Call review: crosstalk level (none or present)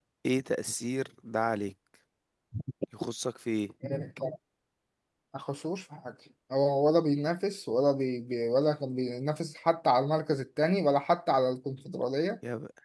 none